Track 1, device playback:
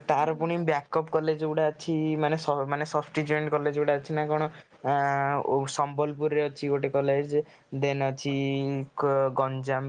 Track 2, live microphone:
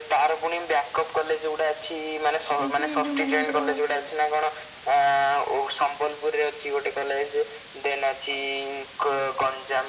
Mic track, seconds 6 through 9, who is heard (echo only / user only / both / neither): echo only